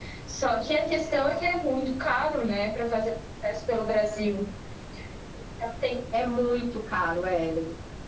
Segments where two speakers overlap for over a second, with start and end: none

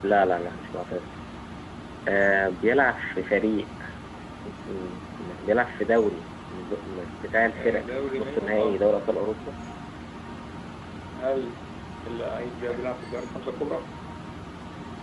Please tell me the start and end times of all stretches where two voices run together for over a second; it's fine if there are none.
7.6-8.8

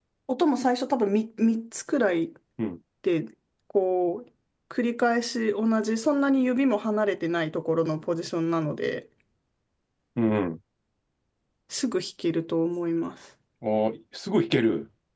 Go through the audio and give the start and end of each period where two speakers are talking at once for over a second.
none

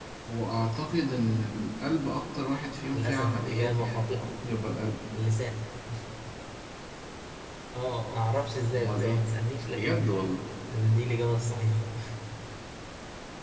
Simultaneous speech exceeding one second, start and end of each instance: 2.9-4.3

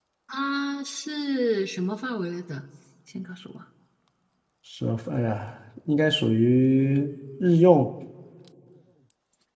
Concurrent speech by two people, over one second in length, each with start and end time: none

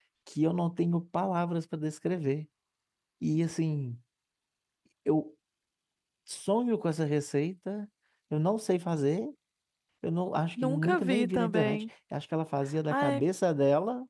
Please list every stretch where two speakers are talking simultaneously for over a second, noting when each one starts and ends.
10.6-11.8

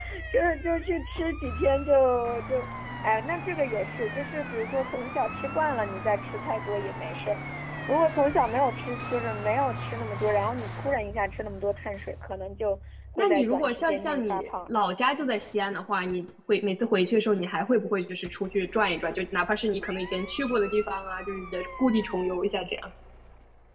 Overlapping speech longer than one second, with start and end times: 13.2-14.7

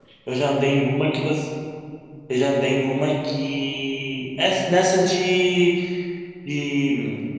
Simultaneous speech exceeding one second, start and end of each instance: none

